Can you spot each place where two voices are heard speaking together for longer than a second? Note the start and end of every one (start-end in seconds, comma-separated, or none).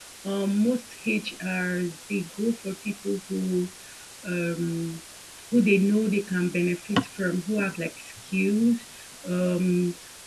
none